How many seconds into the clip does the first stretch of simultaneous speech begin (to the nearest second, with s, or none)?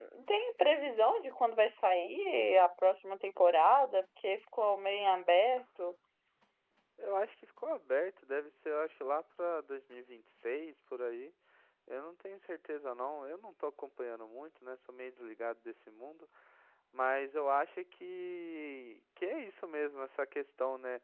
none